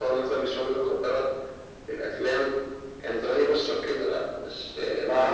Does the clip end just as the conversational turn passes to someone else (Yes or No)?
Yes